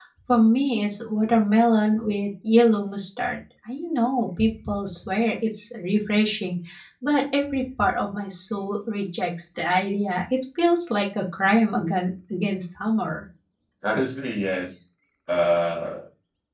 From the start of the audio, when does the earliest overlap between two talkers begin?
none

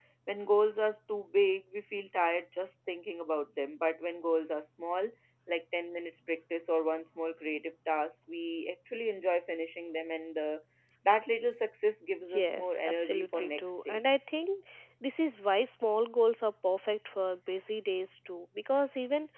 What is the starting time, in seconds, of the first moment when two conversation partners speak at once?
12 s

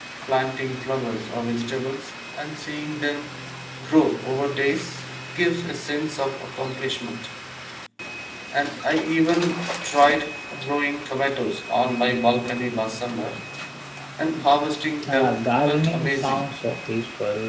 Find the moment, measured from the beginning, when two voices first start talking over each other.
15 s

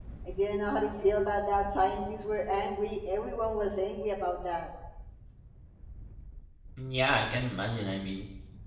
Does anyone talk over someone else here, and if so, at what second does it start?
none

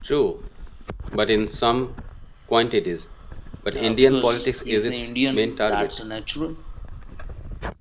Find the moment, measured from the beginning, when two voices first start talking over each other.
4 s

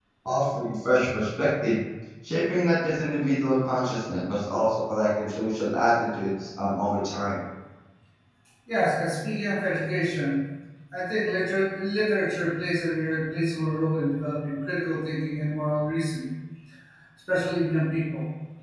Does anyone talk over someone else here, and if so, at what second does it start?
none

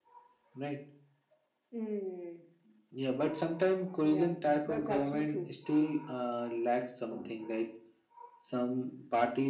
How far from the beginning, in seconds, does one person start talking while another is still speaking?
4 s

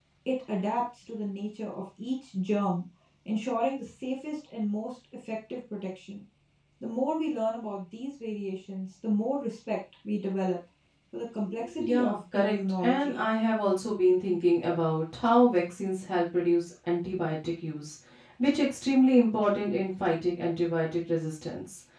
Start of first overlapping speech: 12 s

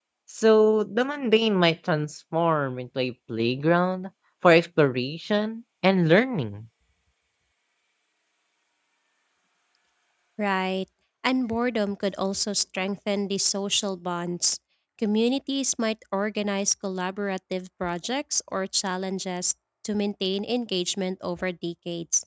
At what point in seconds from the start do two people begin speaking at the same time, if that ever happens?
none

